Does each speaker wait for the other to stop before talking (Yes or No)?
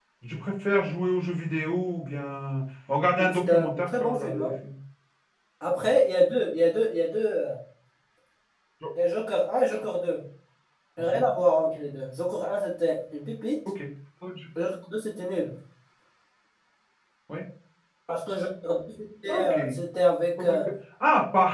No